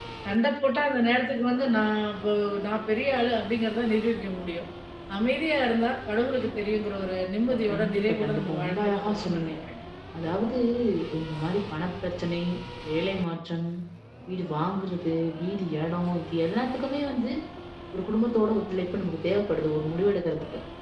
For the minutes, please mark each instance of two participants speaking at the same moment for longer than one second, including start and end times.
7.7-9.5

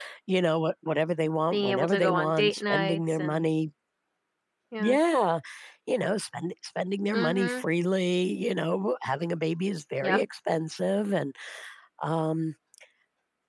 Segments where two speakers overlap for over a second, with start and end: 1.5-3.4

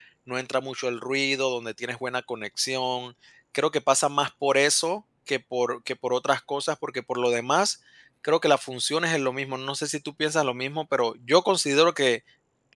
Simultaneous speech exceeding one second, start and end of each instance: none

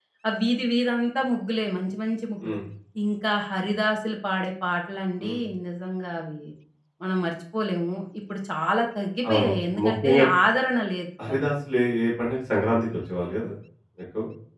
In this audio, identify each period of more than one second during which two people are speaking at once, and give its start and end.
none

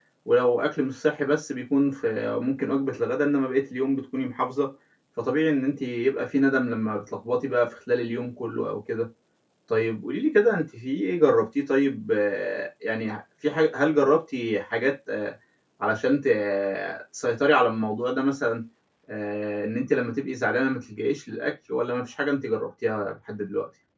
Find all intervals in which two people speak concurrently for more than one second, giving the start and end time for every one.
none

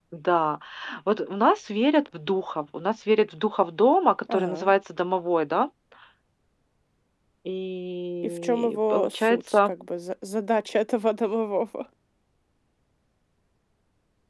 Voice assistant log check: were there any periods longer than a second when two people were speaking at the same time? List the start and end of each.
8.2-9.7

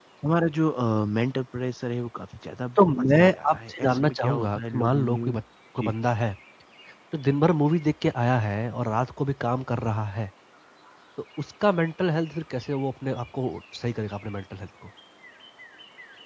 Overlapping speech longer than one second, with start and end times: 2.8-5.3

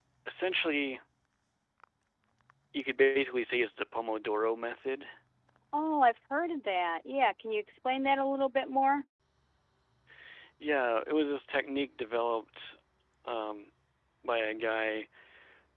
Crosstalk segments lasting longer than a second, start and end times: none

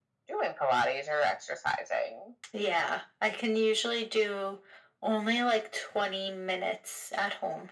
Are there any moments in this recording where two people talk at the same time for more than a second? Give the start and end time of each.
none

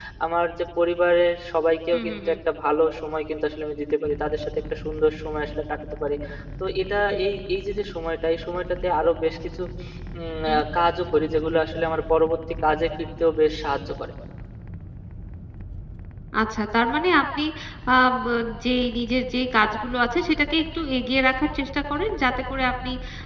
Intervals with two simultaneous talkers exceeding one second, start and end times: none

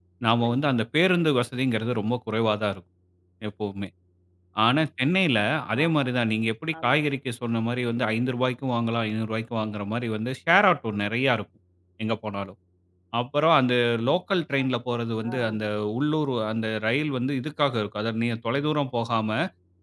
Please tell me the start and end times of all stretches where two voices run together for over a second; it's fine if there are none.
none

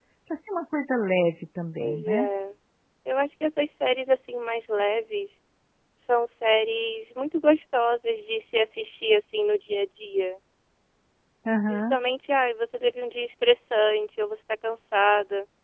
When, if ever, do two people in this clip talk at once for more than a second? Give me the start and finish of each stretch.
none

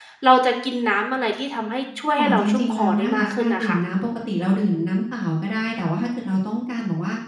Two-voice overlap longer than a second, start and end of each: 2.2-3.8

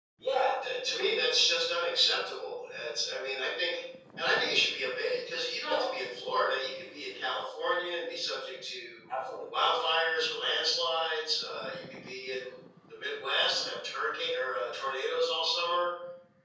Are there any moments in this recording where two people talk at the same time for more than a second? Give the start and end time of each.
none

